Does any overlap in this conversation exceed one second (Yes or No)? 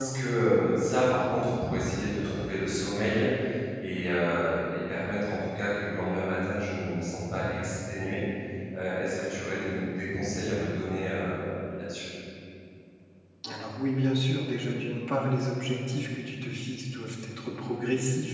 No